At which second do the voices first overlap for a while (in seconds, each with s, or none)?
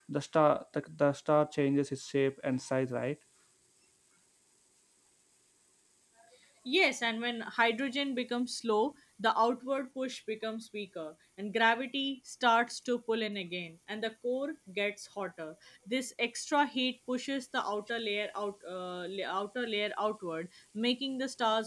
none